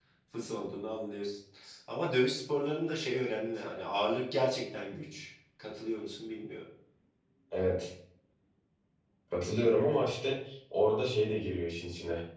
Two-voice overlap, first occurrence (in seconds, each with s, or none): none